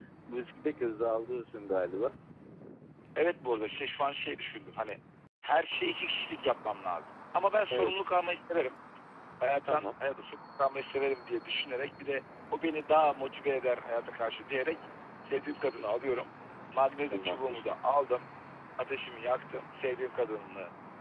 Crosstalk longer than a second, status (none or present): none